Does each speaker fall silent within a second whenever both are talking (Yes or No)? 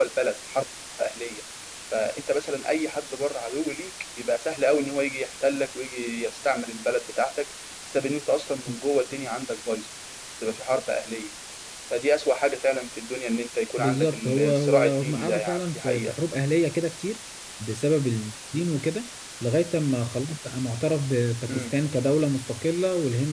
No